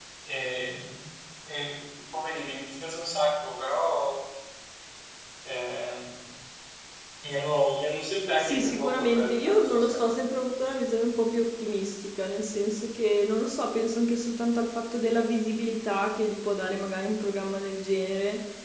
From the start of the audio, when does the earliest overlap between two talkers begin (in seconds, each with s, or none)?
8.4 s